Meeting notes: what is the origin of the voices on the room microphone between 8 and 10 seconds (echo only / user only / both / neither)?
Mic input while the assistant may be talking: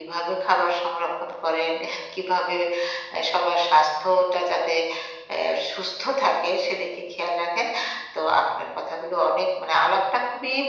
echo only